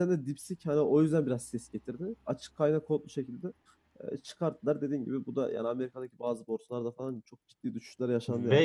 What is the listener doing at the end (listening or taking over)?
taking over